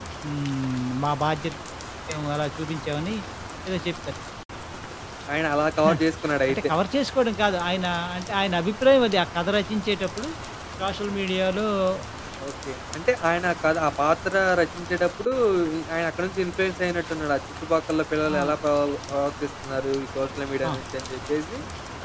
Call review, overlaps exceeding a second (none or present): none